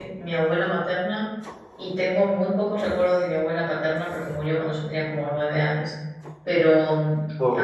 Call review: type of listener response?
listening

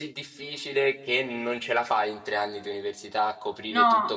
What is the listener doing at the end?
taking over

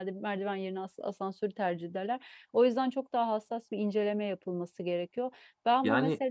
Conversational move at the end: listening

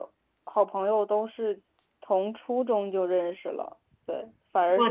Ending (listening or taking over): listening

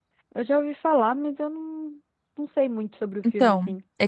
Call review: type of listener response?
taking over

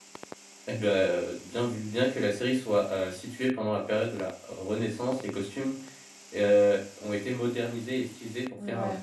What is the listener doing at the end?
listening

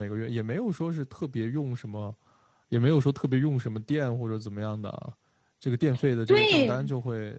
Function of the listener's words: listening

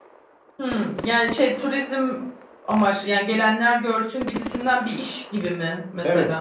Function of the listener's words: taking over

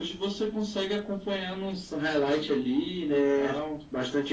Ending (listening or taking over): taking over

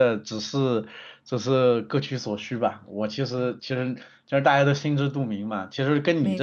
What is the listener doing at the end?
listening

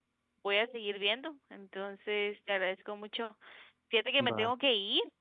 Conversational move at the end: listening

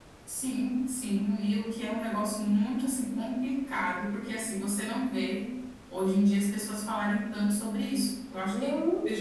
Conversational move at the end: listening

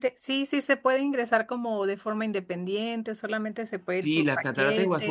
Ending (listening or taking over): taking over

